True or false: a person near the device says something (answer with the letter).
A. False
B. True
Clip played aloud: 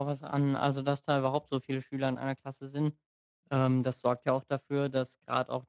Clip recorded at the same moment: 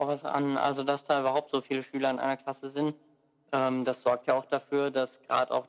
A